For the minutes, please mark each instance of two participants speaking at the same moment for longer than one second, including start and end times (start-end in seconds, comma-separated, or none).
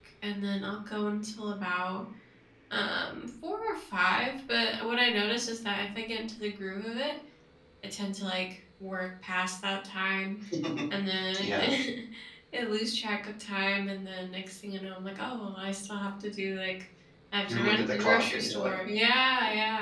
17.5-18.7